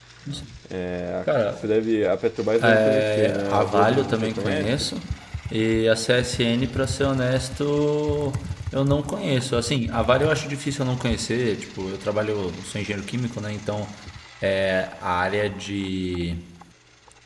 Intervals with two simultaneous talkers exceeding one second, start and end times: 2.6-4.9

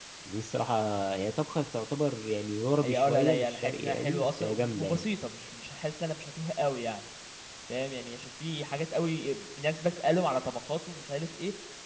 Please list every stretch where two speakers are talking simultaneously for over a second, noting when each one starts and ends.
2.8-5.0

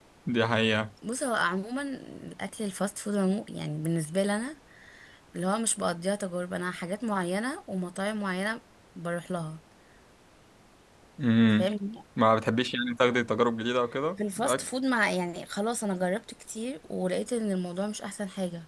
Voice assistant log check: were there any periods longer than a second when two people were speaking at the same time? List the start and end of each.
none

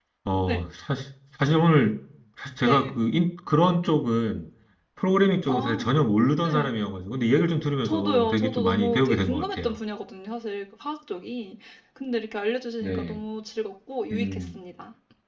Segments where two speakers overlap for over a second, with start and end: 7.8-9.8

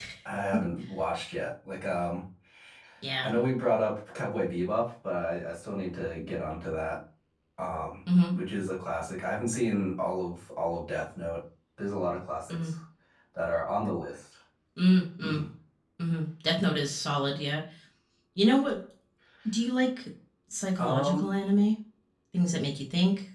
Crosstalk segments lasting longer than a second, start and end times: none

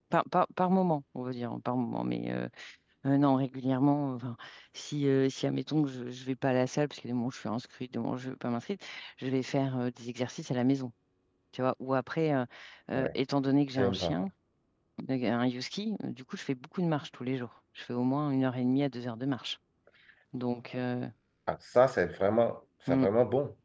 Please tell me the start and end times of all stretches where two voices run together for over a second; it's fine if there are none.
none

